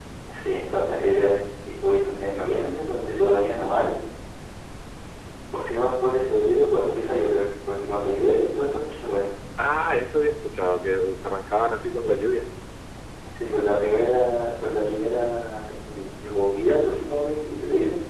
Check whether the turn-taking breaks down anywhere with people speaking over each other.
No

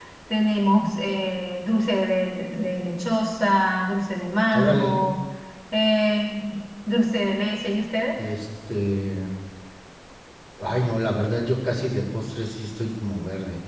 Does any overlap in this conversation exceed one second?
No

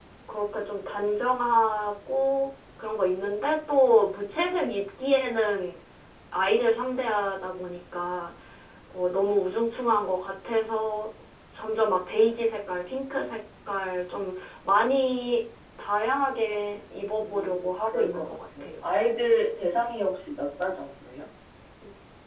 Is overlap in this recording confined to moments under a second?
No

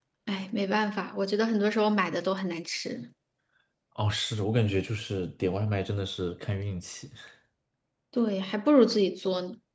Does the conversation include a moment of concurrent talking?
No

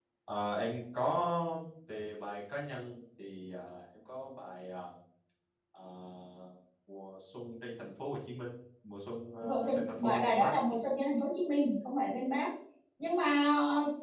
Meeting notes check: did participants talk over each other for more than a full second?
Yes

